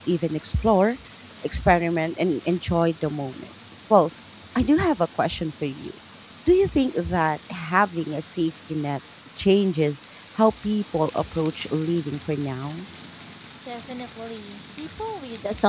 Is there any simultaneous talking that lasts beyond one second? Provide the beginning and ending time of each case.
none

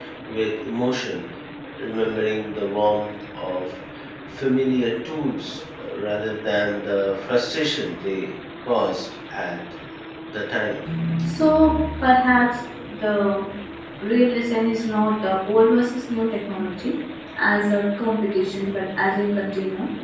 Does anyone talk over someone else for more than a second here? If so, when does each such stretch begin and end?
none

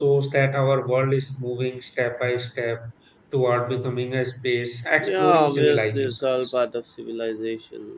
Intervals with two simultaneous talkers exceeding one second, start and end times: 5.0-6.5

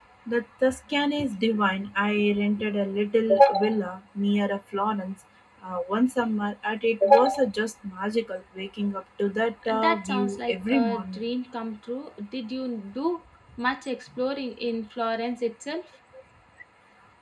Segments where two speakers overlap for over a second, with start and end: 9.7-11.2

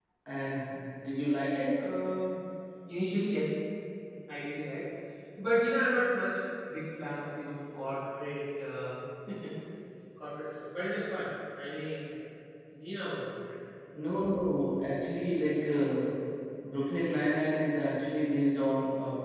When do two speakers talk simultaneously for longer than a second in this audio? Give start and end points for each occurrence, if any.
none

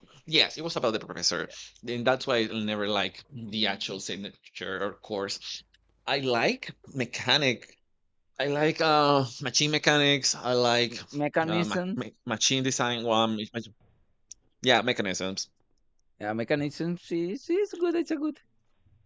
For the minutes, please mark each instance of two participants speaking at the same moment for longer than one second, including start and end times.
none

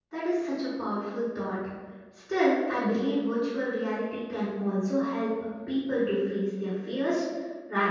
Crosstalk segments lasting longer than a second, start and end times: none

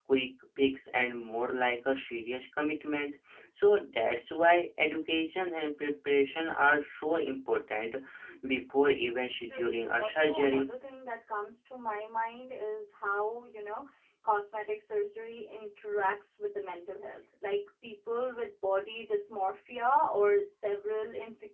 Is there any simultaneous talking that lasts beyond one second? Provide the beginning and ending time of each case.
9.4-10.7

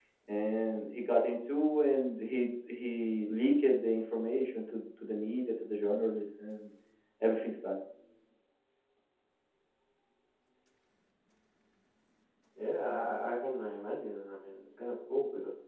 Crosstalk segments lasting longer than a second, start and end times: none

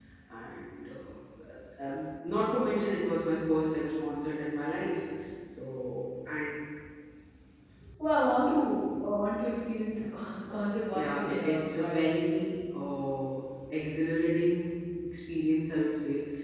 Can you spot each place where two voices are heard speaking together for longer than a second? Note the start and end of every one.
11.0-12.4

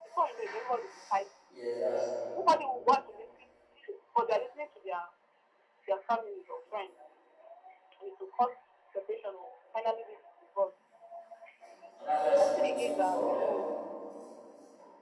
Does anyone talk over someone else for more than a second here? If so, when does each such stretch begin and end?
12.3-13.6

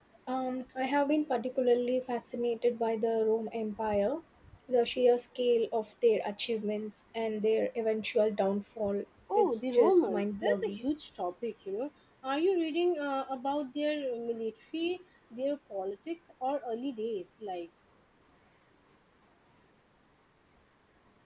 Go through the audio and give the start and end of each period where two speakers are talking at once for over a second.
9.3-10.8

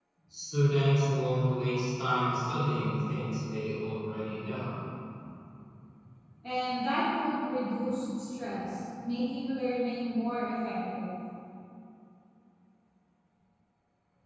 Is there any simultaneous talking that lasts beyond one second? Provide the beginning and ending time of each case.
none

